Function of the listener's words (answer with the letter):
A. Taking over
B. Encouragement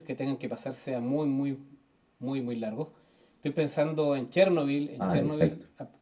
B